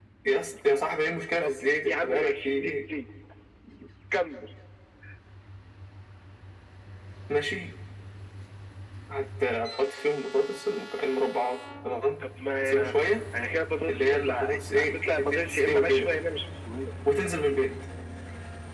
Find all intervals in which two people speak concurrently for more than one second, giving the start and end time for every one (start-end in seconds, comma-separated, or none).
1.4-2.8, 13.9-16.1